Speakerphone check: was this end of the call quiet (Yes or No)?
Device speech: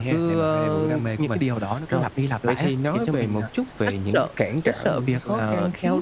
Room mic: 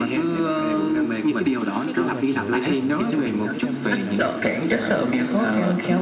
No